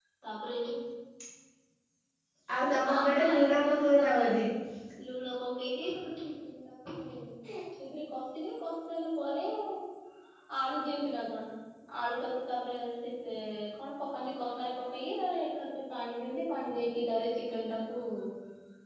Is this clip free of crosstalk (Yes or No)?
No